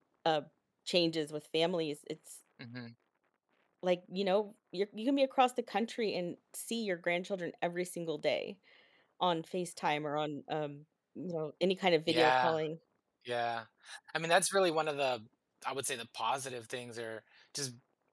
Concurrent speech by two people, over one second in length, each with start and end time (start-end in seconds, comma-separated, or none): none